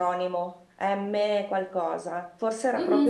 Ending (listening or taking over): taking over